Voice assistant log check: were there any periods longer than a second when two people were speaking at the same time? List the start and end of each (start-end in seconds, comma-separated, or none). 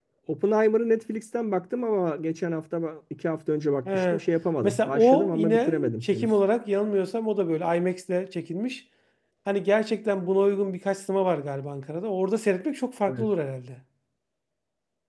4.6-6.3